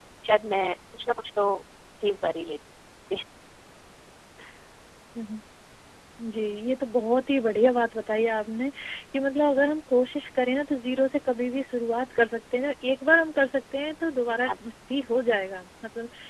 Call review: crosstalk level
none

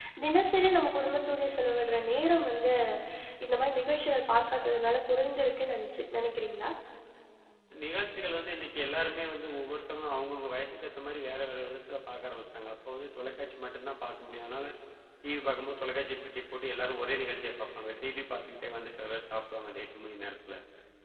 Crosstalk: none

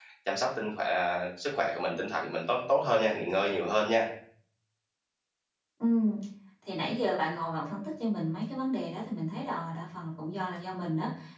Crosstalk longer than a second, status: none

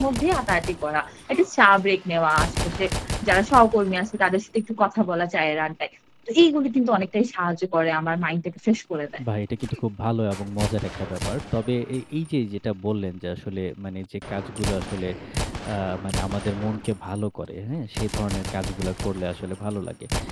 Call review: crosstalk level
none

